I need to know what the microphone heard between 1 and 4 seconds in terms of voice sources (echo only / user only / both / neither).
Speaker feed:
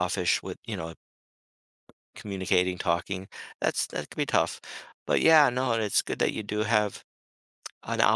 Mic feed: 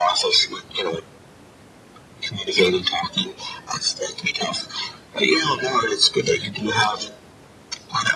echo only